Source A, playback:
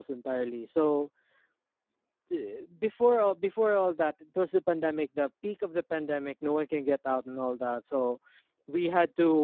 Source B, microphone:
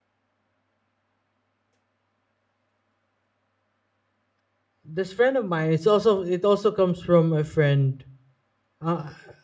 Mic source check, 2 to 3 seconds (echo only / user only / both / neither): neither